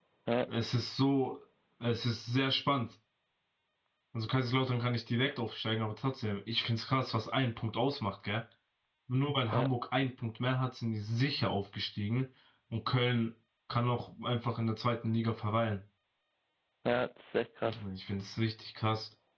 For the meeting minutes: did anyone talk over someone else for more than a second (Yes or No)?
No